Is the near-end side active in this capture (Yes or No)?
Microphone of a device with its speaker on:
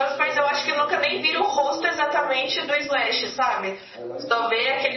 Yes